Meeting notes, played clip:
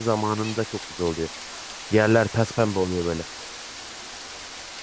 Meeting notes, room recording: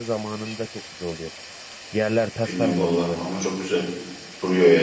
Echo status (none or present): present